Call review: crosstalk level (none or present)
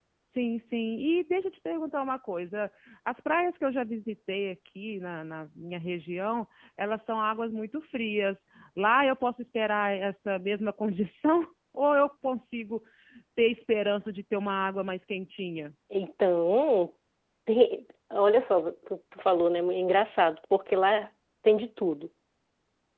none